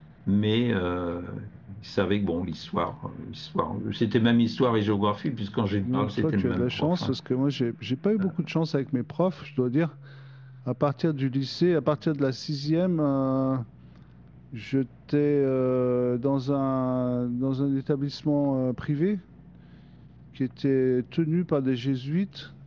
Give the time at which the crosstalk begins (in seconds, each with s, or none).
5.8 s